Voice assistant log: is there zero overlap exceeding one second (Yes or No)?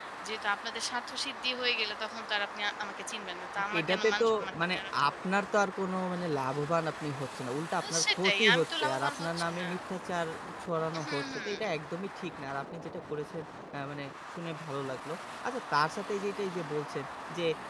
No